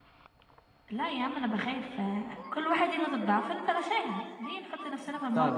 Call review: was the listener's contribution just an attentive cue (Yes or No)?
No